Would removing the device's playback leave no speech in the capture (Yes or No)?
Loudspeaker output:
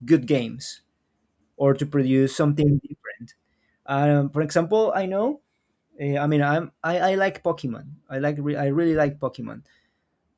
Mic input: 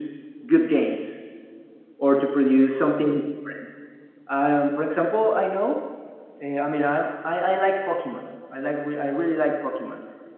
Yes